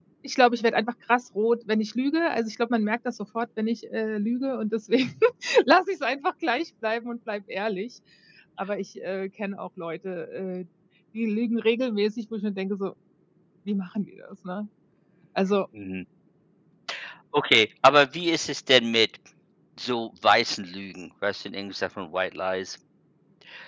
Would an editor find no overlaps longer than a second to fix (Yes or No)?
Yes